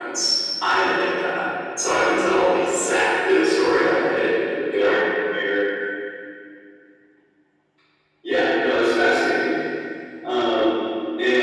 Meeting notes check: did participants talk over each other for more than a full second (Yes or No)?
No